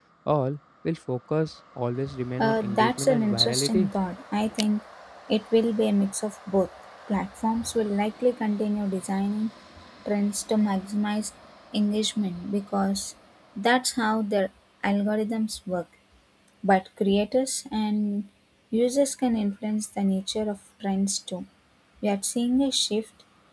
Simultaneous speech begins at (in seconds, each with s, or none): 2.4 s